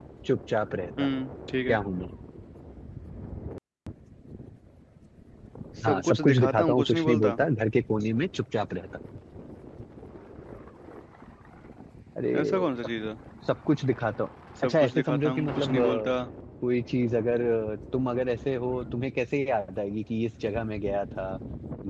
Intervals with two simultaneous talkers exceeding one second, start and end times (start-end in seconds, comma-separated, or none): 5.8-7.4, 14.6-16.1